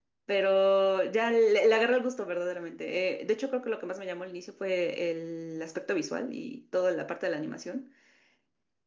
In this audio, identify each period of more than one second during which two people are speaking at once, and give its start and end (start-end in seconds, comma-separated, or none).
none